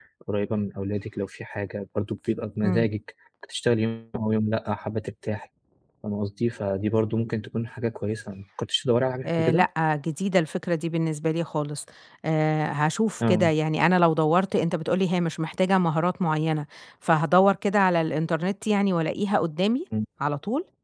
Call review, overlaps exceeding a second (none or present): none